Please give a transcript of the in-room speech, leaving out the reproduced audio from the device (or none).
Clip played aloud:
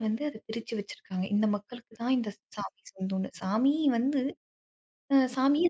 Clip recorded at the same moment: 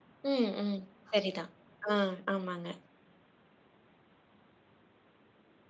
ம், ம். சரிதான். ஆ ஆமாங்க.